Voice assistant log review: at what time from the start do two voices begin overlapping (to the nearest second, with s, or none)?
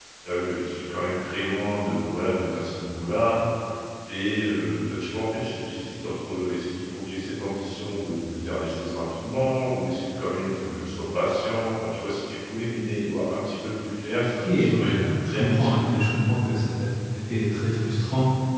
14 s